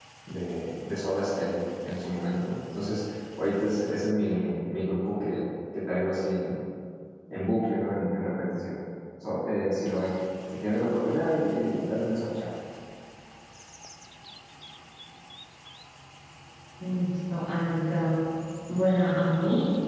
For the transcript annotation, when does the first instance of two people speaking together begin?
none

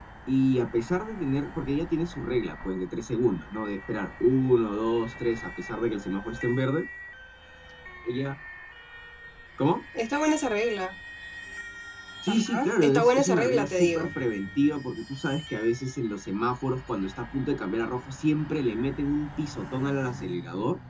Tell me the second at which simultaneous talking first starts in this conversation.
12.3 s

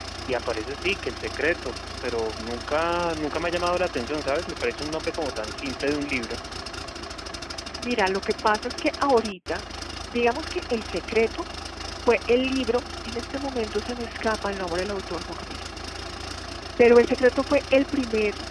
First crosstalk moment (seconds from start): none

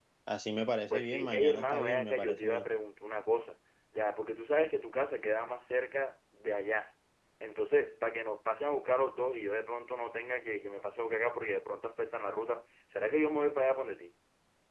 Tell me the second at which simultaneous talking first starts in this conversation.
0.9 s

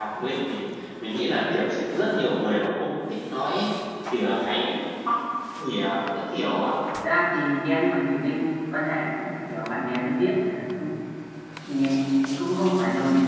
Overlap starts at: none

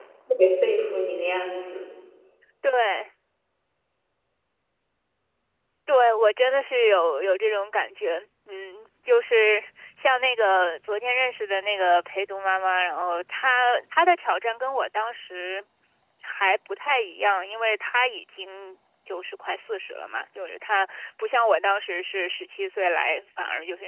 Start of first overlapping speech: none

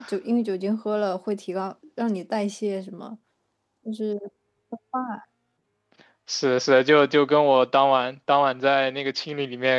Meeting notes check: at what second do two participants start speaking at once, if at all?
none

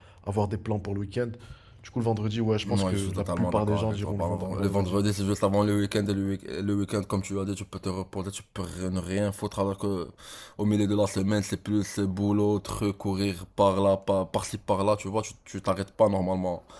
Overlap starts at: 2.6 s

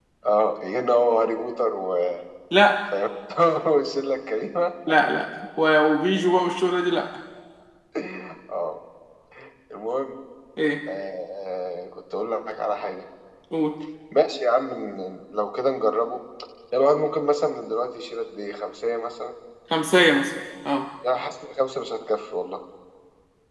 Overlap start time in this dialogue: none

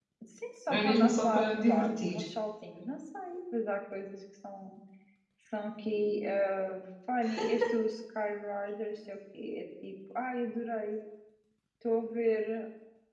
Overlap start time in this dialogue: 0.7 s

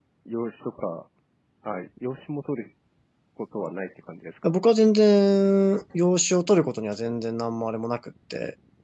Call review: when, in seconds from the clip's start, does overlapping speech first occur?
none

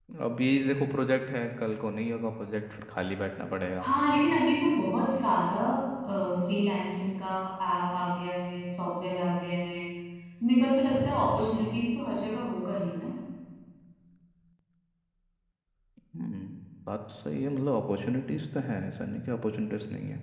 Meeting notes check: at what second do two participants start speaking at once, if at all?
none

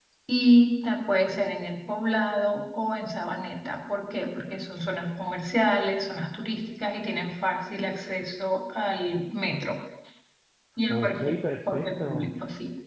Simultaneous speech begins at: 10.9 s

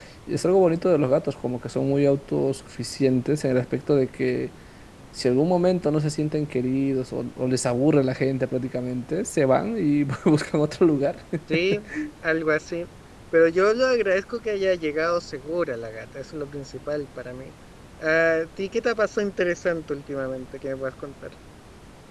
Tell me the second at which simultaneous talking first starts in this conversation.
none

